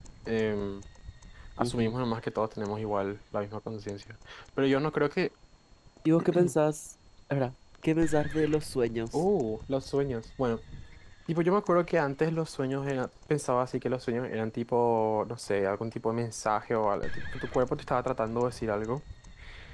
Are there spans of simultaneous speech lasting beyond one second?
No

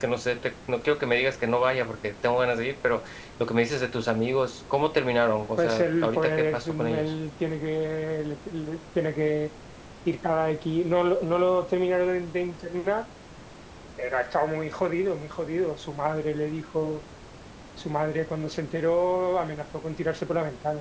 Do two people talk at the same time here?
Yes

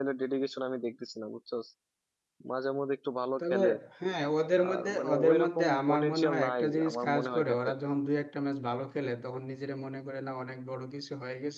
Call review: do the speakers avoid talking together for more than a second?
No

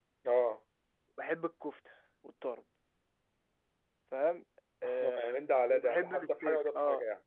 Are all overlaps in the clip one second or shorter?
No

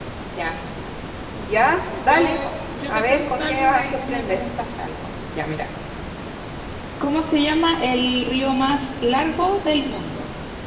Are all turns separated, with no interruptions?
No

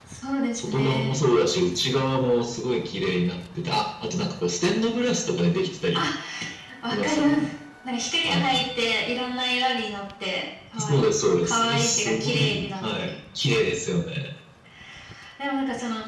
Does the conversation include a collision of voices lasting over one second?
Yes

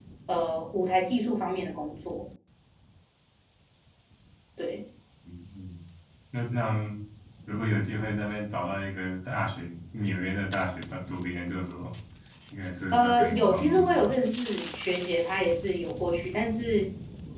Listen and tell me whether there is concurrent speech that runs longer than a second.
Yes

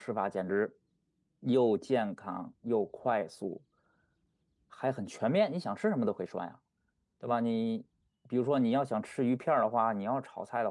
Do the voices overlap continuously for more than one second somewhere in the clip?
No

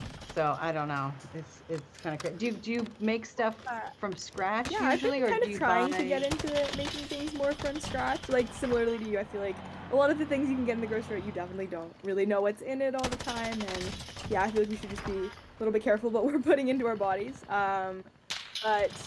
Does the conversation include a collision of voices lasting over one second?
Yes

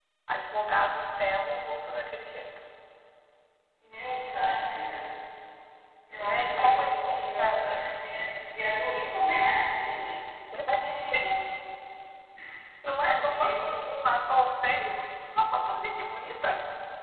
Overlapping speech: Yes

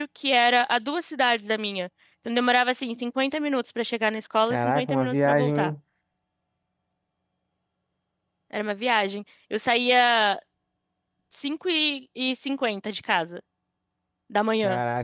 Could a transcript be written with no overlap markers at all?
No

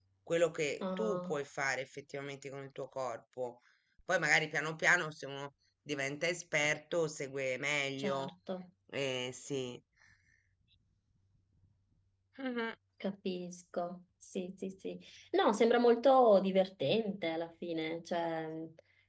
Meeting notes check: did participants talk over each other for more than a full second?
No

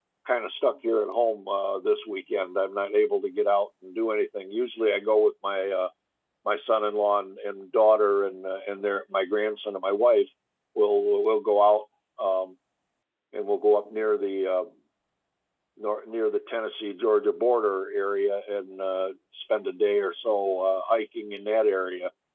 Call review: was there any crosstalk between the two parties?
No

